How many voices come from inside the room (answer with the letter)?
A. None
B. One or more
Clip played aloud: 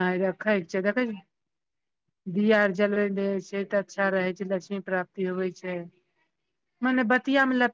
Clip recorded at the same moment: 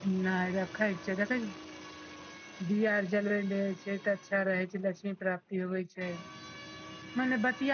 A